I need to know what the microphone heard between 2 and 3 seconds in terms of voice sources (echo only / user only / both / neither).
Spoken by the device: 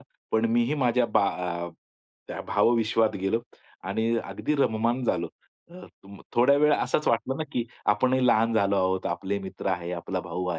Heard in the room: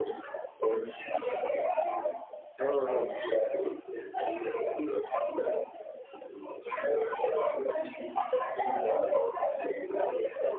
both